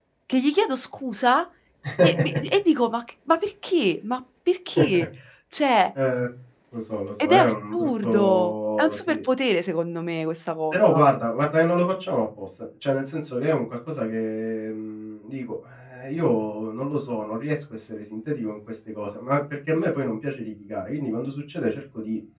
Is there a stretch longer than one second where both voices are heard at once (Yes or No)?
Yes